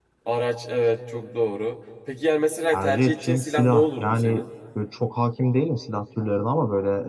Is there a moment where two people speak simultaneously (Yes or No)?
Yes